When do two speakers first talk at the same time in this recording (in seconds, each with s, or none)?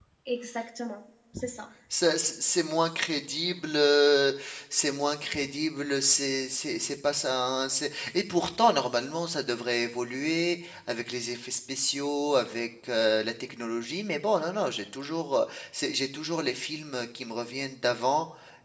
none